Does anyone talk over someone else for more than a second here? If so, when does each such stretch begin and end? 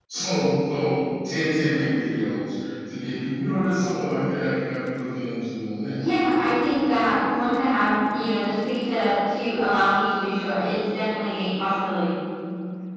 none

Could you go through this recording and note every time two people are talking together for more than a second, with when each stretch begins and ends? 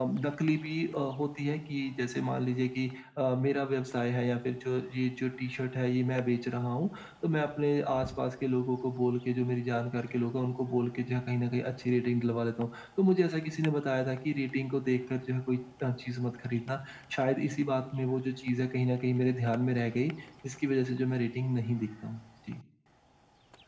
none

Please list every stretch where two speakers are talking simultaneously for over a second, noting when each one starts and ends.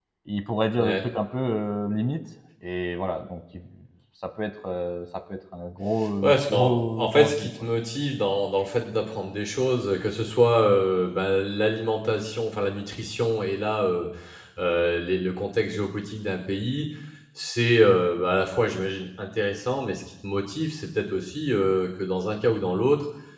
6.2-7.5

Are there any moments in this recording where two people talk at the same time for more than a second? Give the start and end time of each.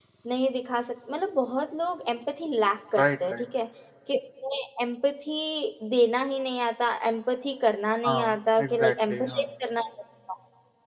8.1-9.4

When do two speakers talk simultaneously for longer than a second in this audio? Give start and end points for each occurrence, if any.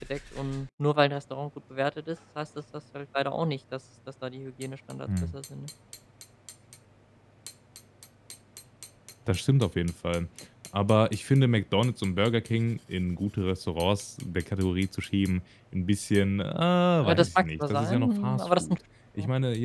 17.0-18.8

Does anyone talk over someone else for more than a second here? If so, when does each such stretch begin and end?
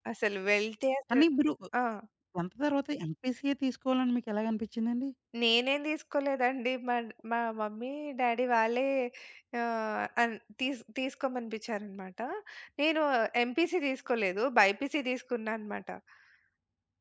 none

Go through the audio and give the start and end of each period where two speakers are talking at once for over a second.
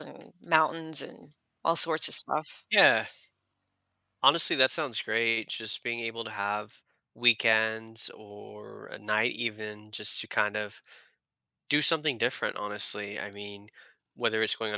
none

